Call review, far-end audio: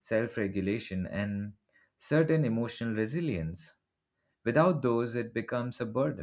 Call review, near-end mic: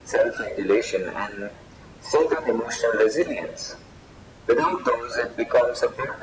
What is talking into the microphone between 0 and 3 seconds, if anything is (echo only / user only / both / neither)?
echo only